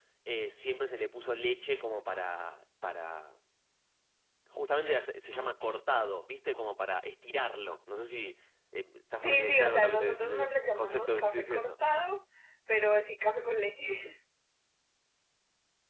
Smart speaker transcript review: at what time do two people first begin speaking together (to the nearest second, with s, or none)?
9 s